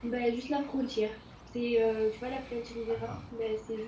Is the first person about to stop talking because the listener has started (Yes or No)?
No